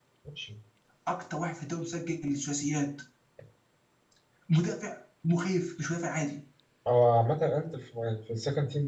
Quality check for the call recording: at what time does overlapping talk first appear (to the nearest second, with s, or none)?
none